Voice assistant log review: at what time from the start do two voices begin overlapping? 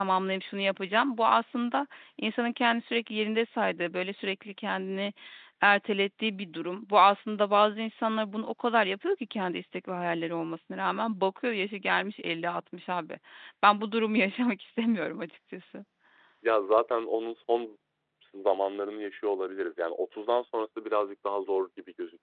none

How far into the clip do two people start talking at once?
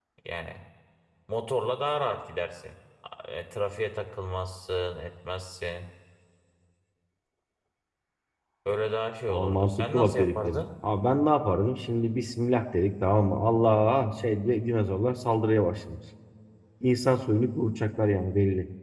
9.3 s

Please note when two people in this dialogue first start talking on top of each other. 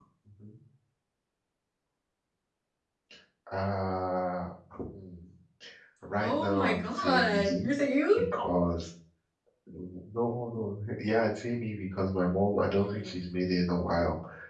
6.2 s

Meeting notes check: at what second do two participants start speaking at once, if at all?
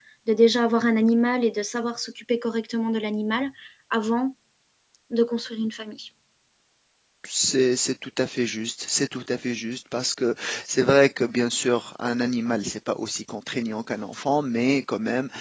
none

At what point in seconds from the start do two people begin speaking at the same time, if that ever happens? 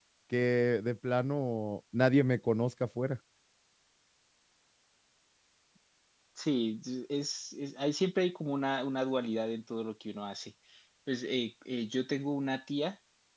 none

